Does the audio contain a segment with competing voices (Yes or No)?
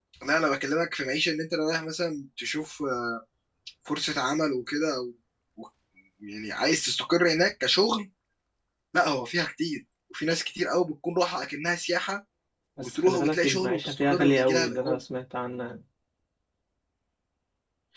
Yes